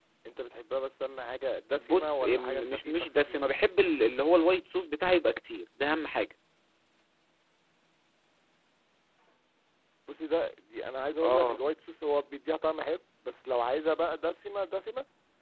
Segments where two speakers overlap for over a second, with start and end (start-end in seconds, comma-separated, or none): 1.7-3.4